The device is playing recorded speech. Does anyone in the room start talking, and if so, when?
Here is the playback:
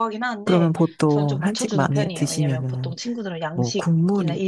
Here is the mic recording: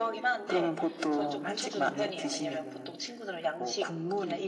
none

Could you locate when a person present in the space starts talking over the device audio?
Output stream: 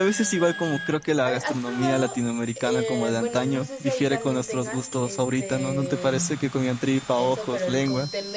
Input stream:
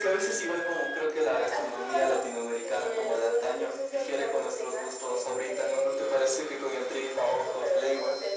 none

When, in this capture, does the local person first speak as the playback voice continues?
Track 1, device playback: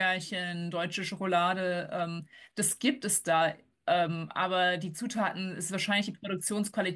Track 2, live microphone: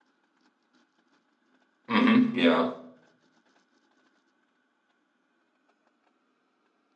1.9 s

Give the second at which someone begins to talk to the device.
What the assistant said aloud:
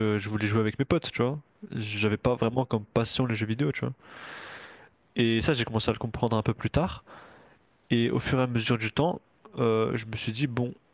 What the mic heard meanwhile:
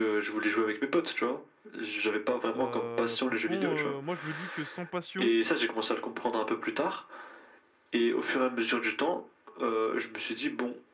2.5 s

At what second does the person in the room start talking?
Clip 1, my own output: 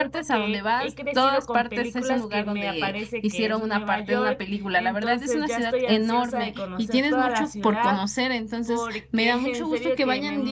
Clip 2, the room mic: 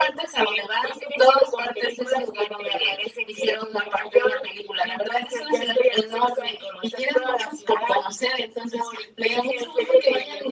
none

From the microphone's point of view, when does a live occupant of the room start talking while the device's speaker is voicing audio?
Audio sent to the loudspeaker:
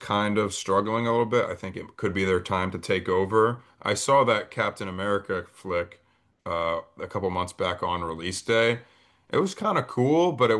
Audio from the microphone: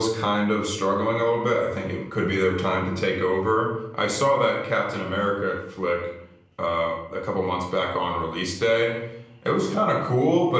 none

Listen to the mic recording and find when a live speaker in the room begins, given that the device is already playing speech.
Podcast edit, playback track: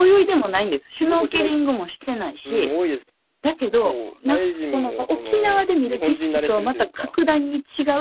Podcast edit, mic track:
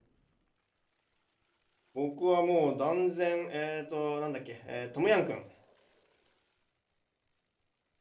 1.9 s

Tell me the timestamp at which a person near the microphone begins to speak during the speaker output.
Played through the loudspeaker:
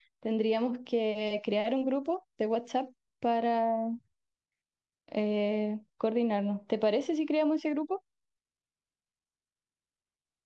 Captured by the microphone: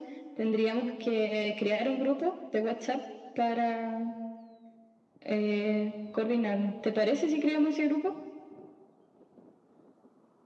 none

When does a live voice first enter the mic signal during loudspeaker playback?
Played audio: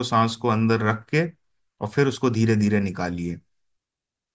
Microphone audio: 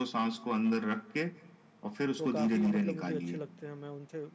2.2 s

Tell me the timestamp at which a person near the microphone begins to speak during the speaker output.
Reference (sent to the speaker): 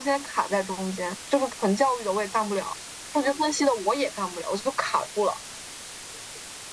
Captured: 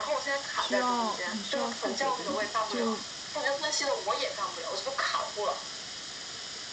0.5 s

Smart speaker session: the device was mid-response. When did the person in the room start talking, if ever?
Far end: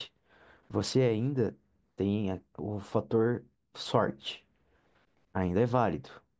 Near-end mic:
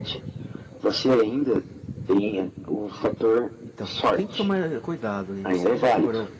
3.6 s

